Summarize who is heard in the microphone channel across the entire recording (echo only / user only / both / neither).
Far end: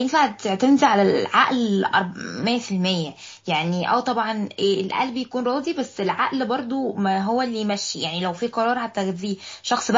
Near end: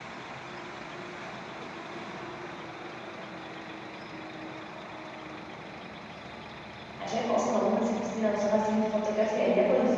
user only